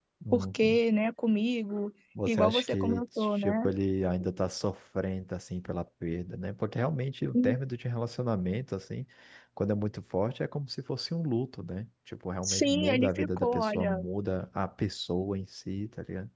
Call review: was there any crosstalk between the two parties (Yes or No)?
Yes